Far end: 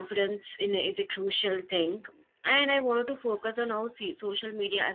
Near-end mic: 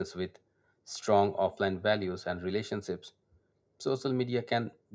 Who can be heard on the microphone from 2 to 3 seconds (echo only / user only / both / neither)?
user only